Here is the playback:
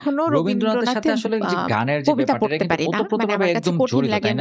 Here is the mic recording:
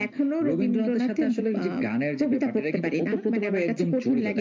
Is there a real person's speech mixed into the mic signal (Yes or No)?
No